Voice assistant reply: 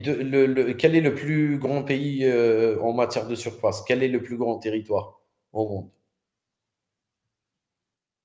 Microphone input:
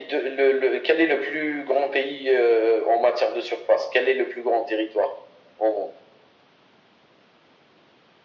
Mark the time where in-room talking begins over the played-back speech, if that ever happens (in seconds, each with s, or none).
none